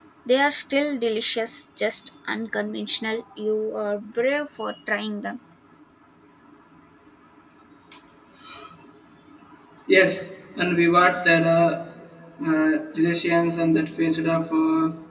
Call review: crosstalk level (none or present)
none